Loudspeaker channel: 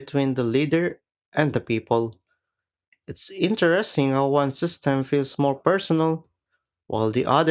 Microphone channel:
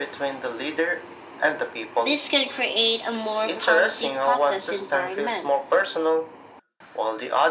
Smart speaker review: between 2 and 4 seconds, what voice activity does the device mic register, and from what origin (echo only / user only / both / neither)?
both